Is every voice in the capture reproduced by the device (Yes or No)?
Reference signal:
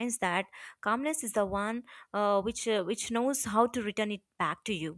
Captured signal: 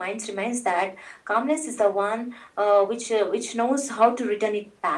Yes